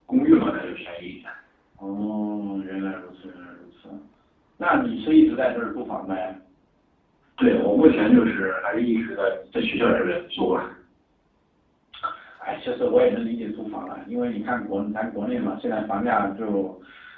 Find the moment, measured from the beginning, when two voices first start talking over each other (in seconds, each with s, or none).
none